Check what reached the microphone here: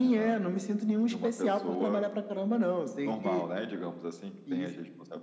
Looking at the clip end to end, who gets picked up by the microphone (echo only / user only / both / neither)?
echo only